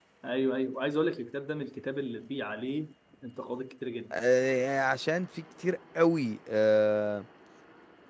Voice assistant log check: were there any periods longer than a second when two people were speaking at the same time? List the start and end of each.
none

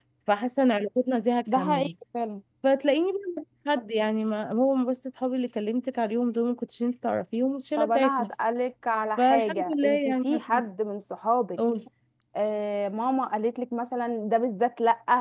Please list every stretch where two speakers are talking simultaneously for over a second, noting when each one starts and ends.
9.2-10.6

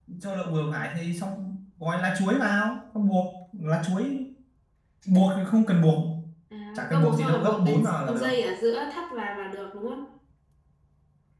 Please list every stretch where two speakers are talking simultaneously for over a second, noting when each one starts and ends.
6.9-8.3

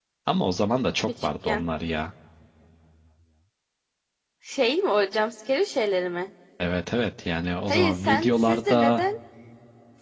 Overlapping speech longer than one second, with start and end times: 7.7-9.0

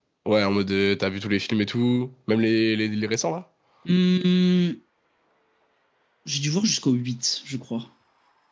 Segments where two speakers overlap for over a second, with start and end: none

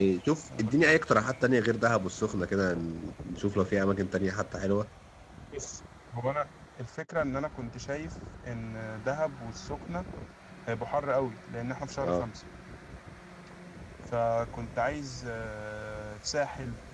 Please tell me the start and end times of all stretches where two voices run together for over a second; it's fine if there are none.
none

